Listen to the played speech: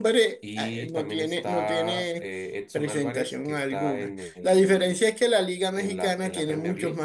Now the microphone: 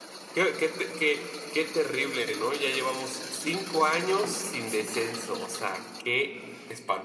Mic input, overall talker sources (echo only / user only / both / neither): user only